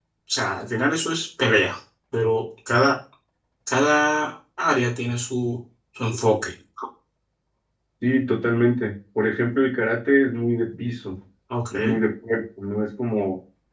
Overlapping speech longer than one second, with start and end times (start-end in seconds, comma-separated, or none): none